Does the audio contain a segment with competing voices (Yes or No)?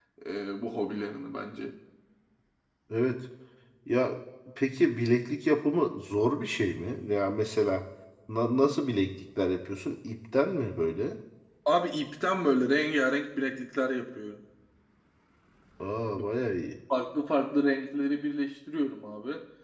No